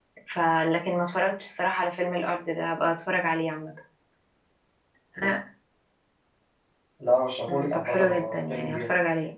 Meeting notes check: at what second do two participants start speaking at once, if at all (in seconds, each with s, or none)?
7.5 s